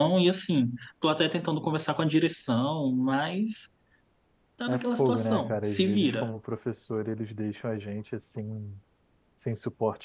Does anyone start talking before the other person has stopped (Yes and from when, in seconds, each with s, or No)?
Yes, from 4.7 s